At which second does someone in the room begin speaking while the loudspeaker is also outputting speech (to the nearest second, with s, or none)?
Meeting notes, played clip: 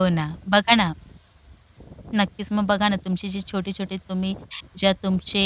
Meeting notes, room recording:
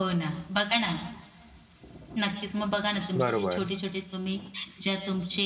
3 s